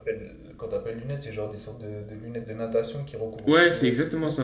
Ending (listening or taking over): taking over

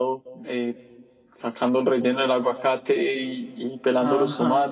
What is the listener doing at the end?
listening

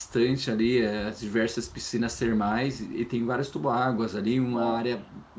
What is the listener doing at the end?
listening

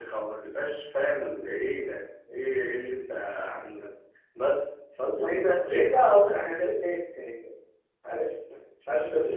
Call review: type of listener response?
taking over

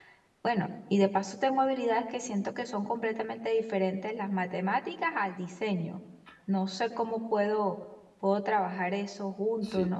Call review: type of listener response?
taking over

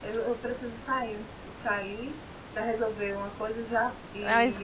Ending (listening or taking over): taking over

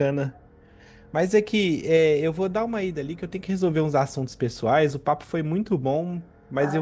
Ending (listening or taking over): listening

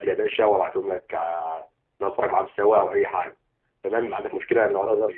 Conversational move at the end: listening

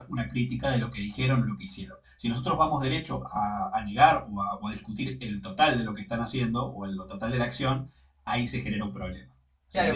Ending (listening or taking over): taking over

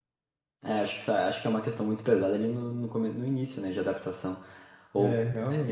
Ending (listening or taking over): listening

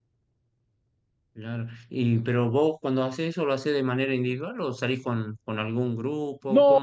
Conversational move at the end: taking over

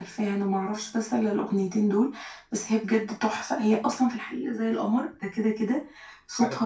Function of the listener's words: listening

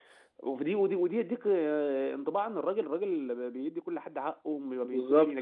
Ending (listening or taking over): listening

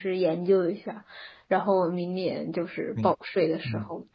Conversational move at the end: taking over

